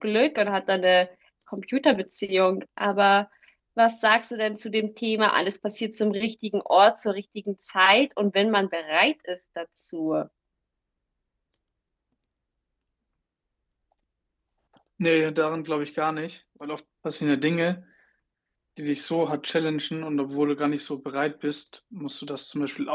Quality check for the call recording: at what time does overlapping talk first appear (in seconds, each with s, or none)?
none